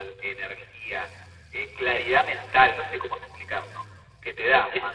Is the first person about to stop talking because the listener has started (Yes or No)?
No